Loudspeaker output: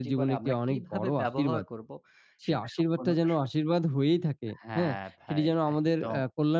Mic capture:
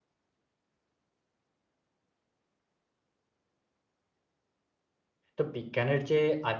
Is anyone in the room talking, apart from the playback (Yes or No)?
Yes